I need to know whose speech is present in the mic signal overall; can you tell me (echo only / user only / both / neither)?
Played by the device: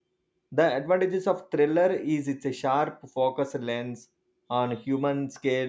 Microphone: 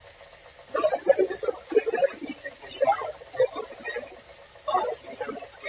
echo only